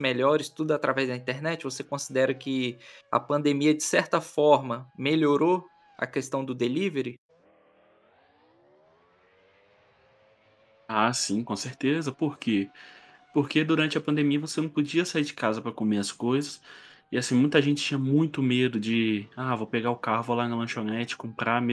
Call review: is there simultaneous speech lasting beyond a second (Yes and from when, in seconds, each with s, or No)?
No